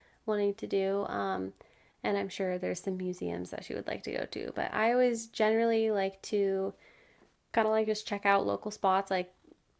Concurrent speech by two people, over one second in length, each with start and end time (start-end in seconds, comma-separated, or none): none